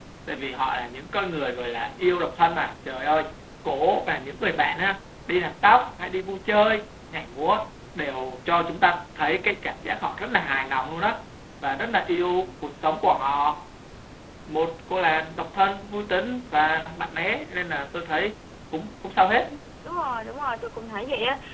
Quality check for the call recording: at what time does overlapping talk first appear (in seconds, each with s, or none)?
none